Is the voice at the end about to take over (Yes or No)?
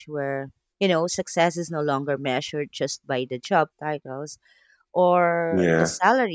No